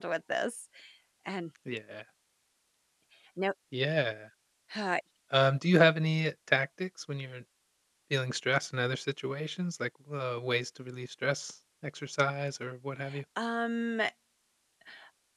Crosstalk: none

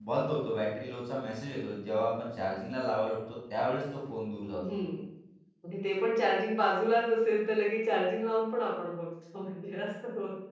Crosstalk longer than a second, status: none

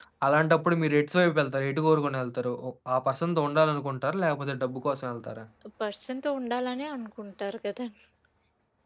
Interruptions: none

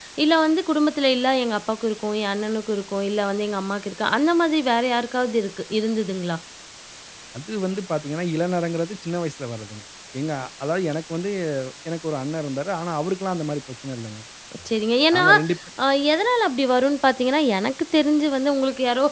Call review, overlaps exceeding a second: none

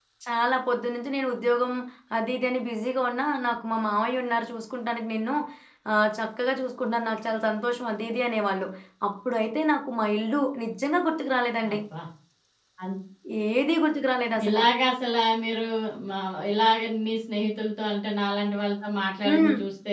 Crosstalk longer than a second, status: none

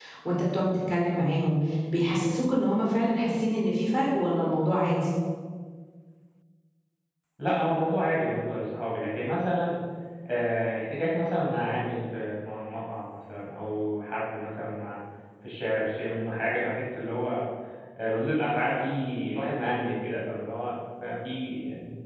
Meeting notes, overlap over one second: none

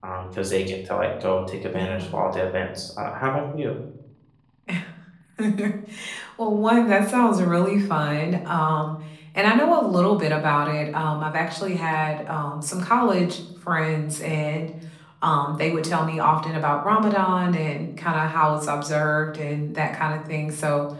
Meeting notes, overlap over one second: none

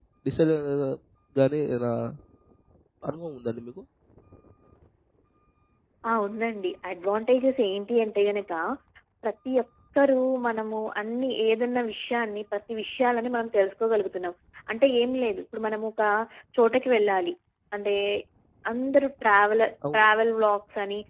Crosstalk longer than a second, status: none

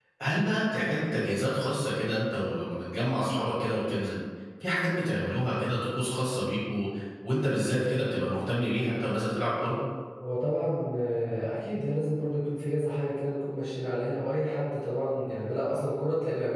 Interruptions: none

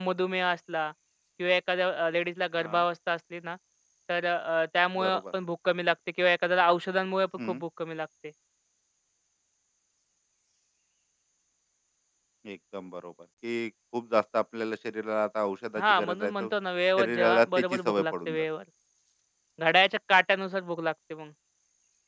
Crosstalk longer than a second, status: present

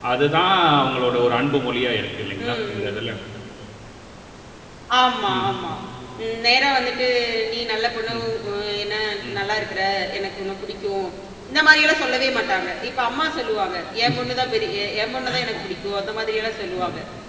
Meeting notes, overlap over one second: none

